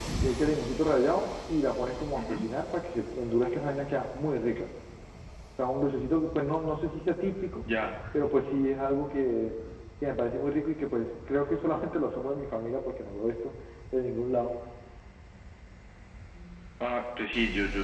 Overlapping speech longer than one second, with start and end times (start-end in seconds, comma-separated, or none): none